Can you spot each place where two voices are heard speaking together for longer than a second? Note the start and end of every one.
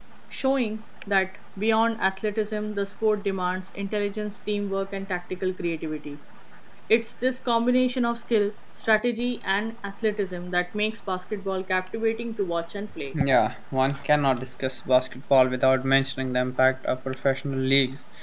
none

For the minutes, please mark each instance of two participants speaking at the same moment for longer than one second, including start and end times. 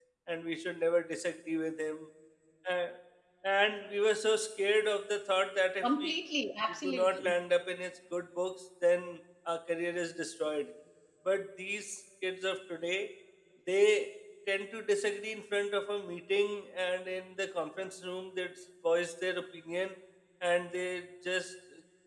none

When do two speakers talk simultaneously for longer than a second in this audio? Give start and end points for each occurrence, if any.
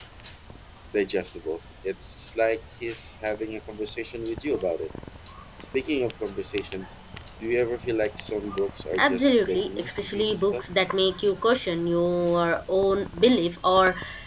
9.0-10.7

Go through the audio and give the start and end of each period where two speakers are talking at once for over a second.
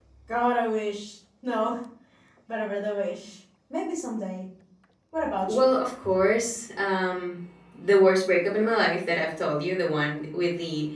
none

